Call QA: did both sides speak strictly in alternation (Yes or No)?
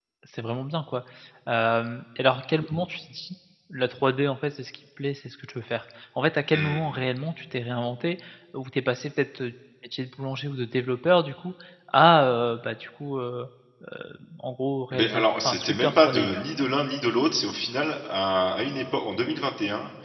No